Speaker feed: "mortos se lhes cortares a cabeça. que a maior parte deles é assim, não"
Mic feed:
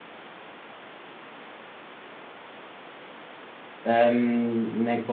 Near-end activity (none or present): present